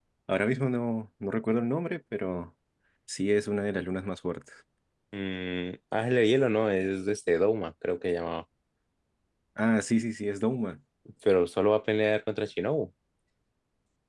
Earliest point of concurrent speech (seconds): none

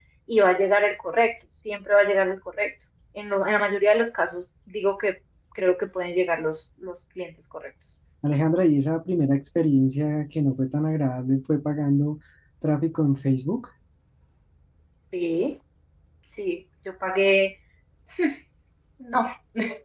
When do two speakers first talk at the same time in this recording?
none

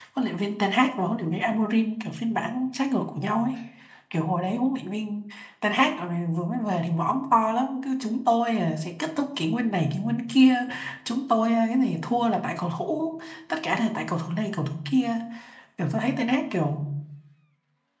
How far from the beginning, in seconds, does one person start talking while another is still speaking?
none

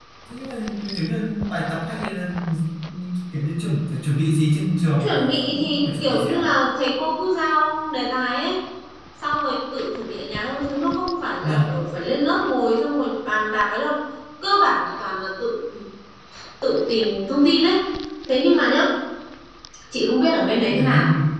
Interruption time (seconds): 5 s

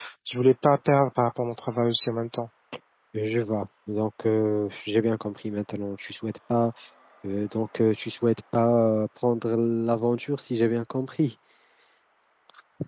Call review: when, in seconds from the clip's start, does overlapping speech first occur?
none

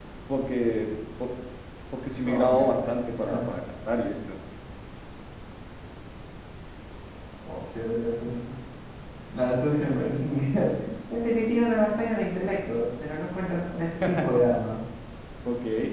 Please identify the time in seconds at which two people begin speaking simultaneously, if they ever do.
2 s

